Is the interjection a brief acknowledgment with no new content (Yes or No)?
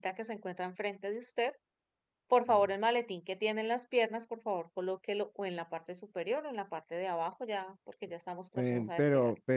No